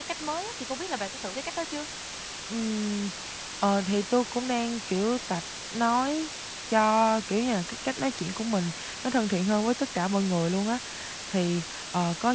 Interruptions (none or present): none